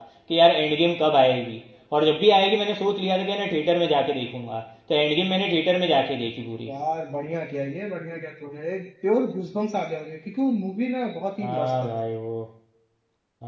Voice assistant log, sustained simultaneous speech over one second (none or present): none